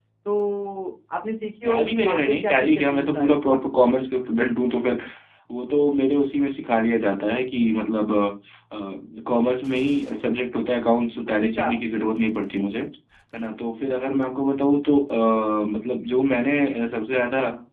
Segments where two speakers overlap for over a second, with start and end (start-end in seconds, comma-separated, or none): 1.6-3.8